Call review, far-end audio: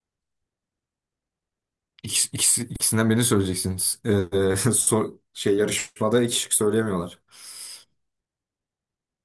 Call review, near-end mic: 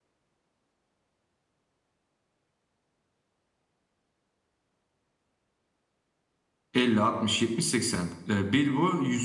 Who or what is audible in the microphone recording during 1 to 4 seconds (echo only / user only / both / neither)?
neither